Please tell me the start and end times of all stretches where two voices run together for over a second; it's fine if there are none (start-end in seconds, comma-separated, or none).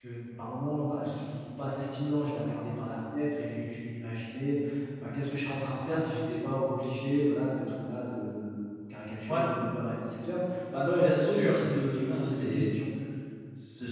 10.8-12.7